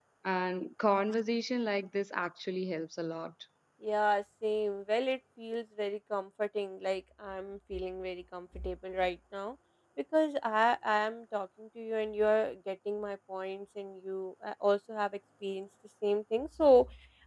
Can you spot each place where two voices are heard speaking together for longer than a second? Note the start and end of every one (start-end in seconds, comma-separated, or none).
none